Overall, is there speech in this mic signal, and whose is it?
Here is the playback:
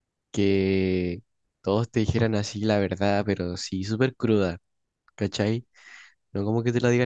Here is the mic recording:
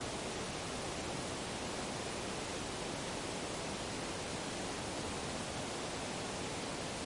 neither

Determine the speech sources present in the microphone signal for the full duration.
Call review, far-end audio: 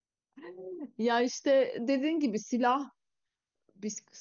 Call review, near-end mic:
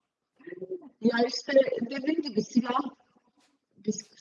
echo only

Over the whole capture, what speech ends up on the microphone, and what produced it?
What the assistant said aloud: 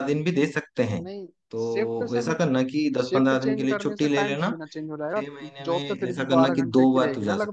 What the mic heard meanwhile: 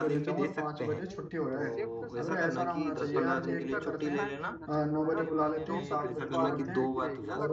both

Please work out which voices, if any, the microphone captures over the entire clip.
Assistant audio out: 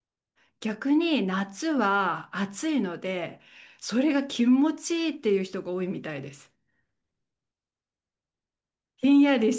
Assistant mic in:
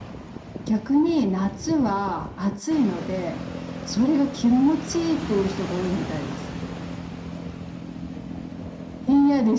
echo only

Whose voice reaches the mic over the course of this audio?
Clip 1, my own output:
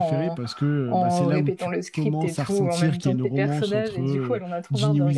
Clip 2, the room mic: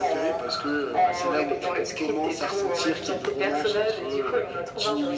echo only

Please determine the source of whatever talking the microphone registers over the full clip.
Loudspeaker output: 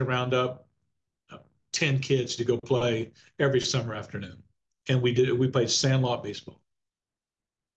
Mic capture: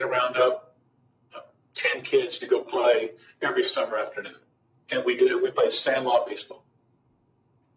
echo only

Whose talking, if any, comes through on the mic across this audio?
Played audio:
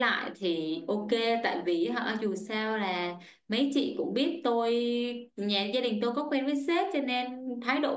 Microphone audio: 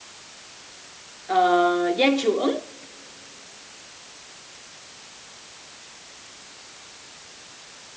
user only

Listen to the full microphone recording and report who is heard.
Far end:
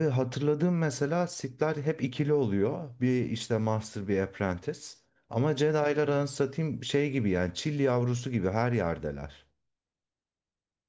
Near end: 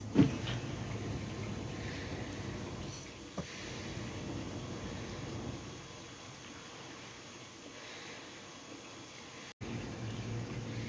neither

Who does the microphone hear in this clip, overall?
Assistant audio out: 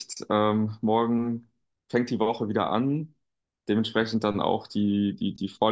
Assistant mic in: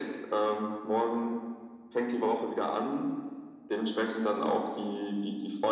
echo only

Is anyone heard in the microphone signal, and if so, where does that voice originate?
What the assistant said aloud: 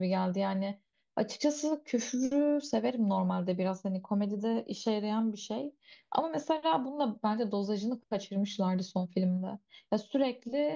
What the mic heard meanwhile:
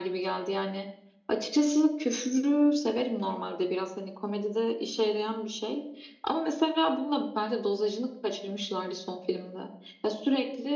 echo only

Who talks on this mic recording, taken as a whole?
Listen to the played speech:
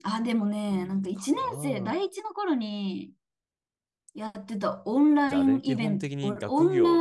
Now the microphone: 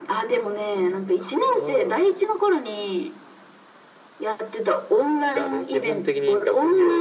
echo only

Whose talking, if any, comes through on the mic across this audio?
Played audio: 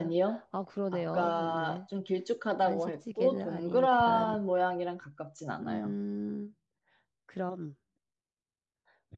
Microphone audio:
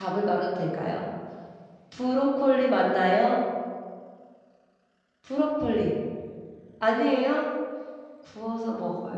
user only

